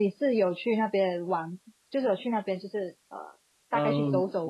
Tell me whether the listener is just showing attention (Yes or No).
No